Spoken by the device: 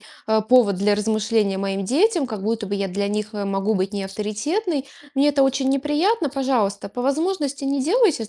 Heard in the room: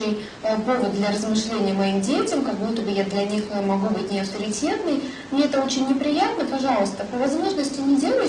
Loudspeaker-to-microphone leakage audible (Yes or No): Yes